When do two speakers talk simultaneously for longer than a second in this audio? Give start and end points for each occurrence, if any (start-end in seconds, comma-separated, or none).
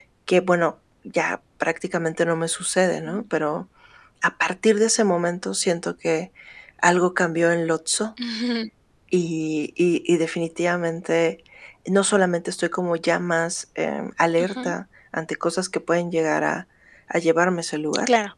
none